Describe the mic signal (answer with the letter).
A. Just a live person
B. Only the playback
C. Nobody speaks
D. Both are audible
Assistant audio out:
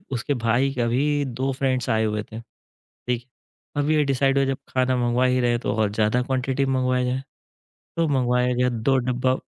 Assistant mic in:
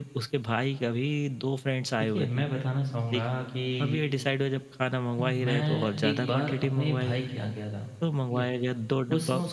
D